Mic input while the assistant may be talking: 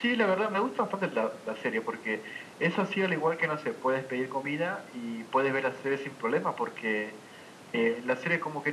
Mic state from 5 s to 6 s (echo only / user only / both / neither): echo only